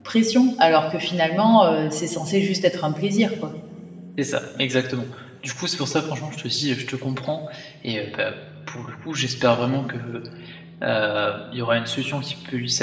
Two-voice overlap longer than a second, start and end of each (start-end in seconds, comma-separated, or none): none